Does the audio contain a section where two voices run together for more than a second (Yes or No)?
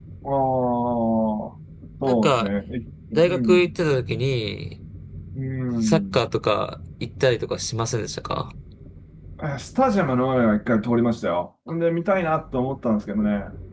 No